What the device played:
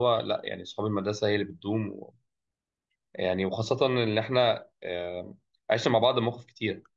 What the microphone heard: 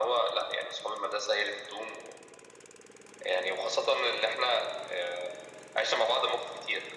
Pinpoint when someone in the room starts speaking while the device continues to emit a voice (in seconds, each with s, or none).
none